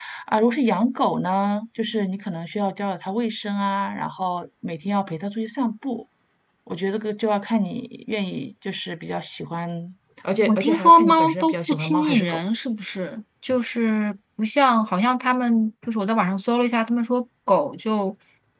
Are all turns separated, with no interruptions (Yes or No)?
No